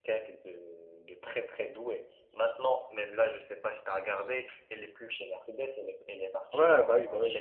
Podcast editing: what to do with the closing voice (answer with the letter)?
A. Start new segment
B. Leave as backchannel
A